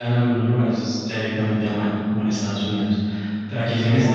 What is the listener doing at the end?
taking over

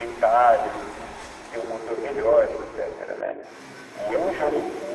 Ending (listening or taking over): listening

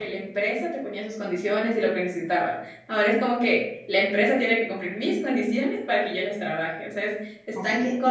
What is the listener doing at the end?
taking over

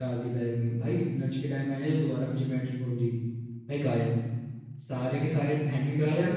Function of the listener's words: listening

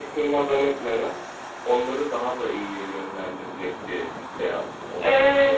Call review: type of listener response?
taking over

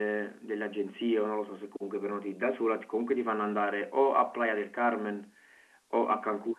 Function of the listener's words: listening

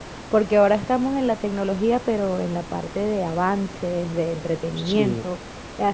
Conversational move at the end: listening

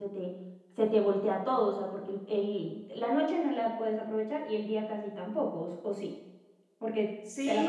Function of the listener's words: taking over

